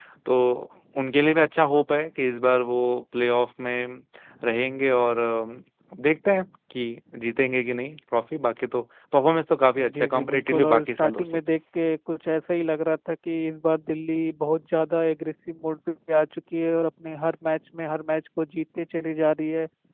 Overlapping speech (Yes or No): Yes